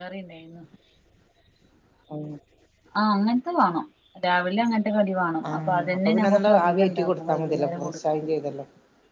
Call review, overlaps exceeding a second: present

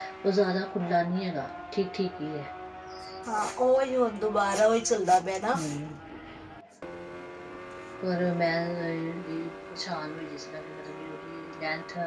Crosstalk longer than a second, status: none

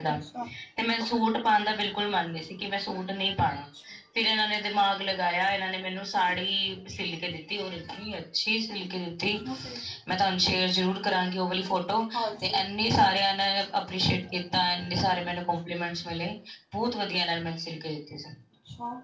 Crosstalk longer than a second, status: none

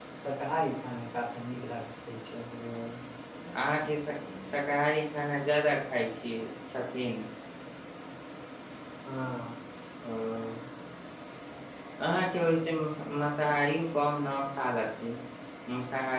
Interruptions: none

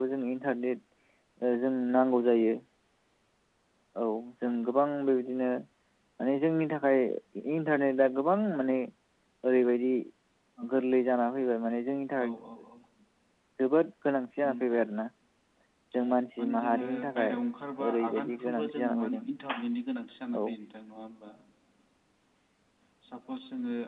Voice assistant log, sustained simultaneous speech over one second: present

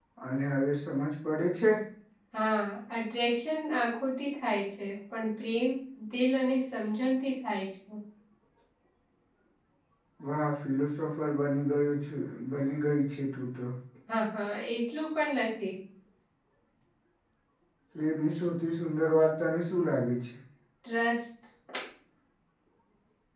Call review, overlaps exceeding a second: none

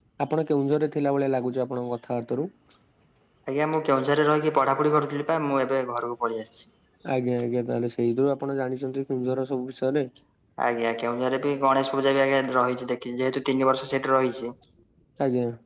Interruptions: none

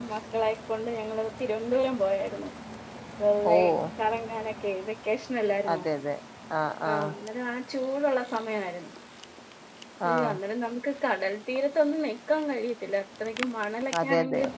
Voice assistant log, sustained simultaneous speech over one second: none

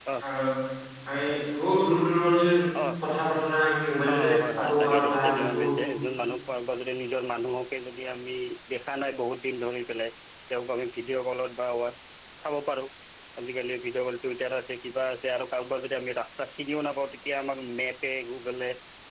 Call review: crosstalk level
present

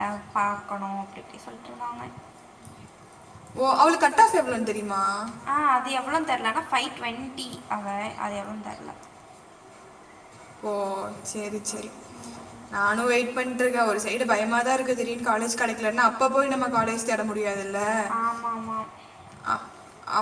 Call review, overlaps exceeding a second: none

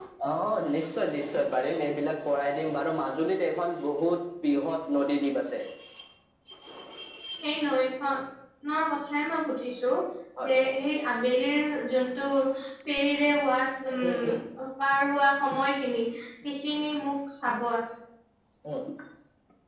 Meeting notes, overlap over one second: none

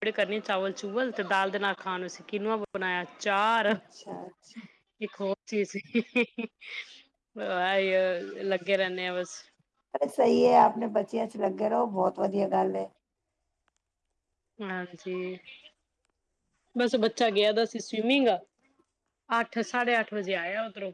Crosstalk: none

